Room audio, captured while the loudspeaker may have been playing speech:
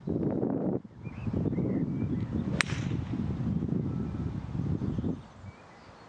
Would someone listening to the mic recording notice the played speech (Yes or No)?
No